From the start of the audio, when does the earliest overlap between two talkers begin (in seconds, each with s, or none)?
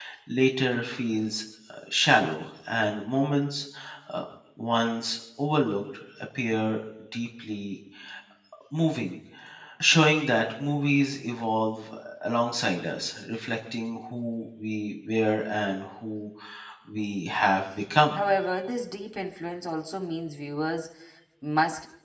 none